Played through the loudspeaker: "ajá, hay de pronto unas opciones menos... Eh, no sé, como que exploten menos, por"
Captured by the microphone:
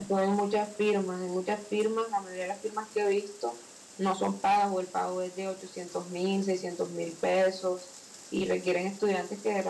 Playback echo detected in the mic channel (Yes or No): No